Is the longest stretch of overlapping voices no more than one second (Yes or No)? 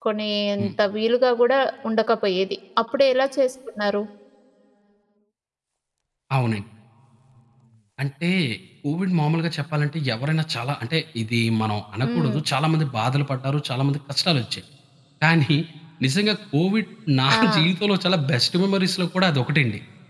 Yes